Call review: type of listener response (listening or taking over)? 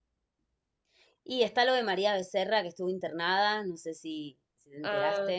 taking over